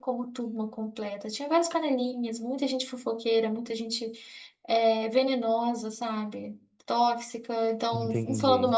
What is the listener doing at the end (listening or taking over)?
listening